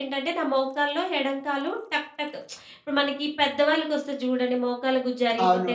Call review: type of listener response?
taking over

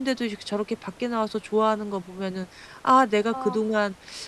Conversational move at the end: listening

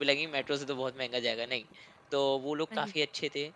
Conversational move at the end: listening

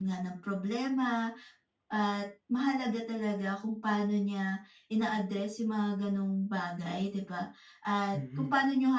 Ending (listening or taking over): listening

